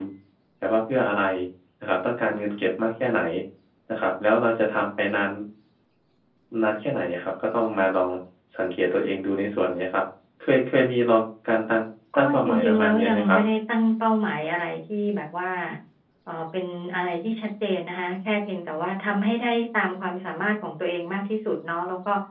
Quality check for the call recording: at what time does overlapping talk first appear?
12 s

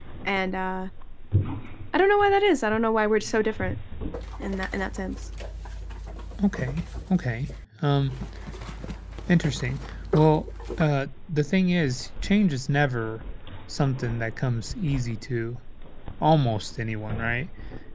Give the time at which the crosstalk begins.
none

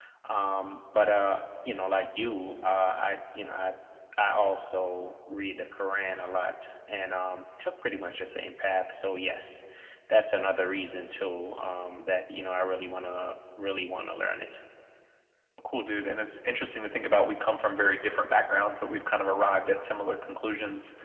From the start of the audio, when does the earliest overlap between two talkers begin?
none

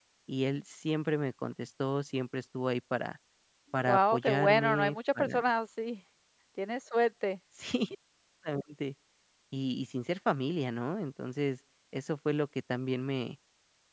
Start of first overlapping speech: 4 s

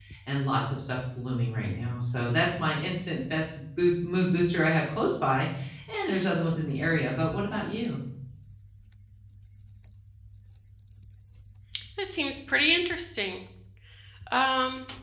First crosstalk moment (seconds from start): none

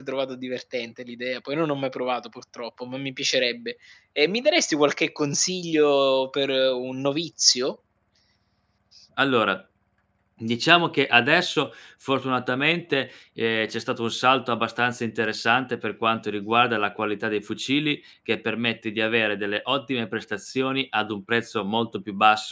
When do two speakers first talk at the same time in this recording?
none

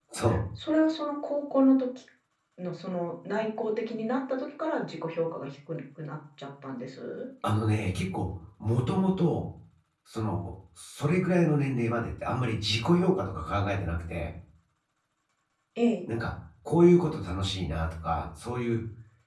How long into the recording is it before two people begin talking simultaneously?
none

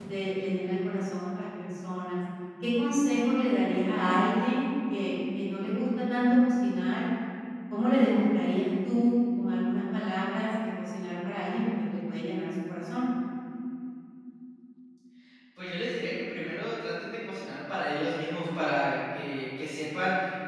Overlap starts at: none

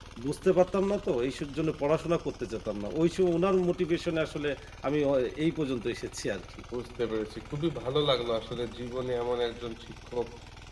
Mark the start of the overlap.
none

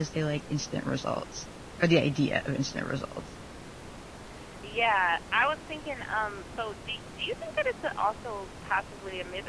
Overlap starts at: none

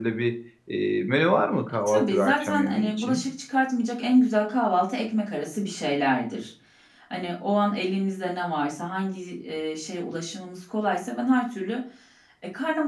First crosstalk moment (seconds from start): 2 s

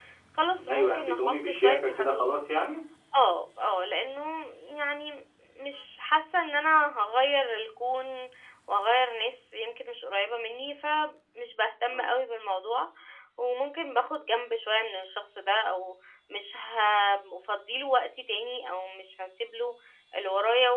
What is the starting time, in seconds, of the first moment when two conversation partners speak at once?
1 s

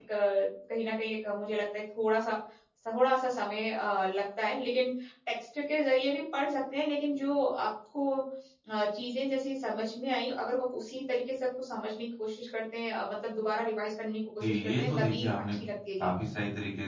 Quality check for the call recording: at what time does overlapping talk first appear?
14 s

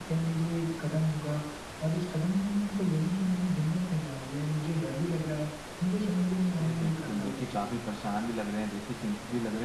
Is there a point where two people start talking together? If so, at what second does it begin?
7 s

